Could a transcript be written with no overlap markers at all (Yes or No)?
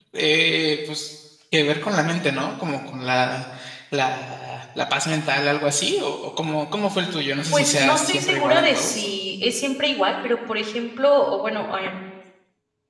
No